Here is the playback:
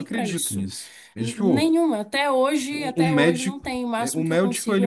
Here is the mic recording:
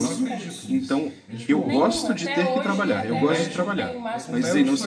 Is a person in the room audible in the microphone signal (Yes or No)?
Yes